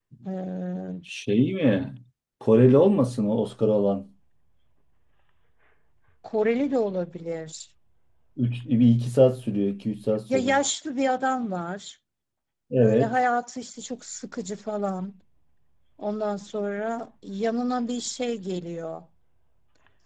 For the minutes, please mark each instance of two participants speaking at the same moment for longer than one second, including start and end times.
none

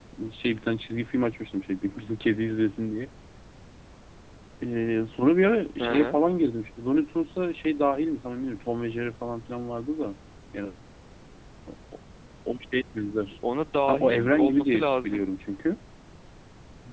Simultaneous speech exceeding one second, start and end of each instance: 13.9-15.2

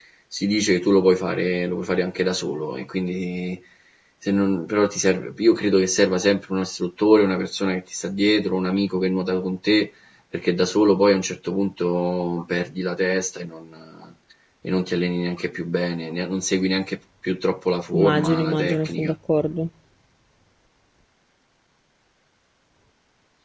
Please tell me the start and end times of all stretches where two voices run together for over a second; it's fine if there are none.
17.9-19.1

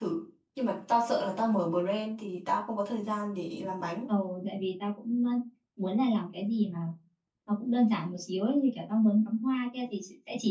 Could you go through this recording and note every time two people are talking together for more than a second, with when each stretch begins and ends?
none

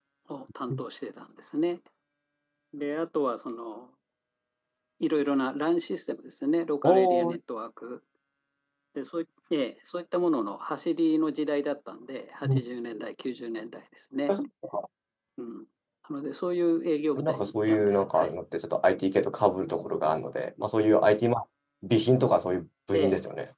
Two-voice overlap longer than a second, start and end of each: 17.2-18.4

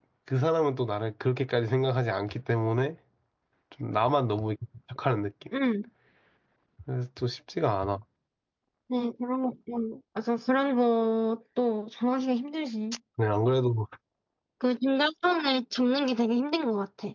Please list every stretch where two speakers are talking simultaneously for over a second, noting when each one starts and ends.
none

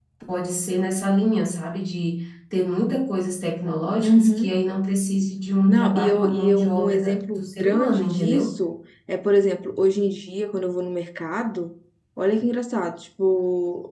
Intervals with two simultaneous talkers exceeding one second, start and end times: 5.7-8.5

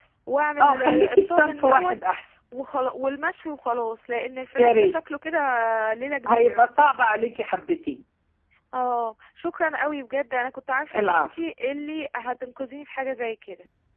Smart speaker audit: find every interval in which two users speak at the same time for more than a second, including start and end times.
0.6-1.9

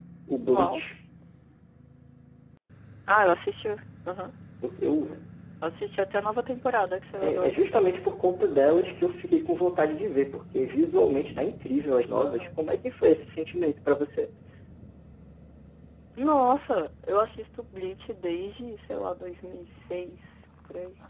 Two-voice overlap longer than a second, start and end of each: none

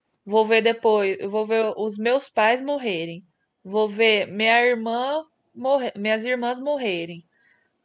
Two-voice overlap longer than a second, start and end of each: none

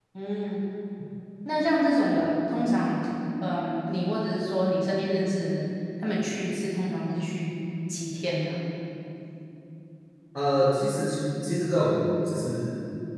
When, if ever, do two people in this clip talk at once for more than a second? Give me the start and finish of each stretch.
none

